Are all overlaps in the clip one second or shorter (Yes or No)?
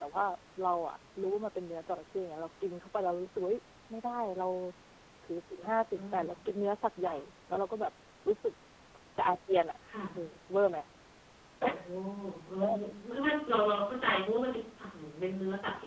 Yes